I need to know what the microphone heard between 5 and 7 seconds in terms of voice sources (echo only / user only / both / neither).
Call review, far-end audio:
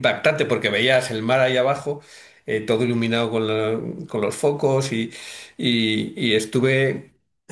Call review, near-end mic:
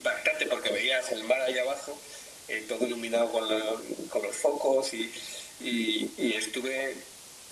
echo only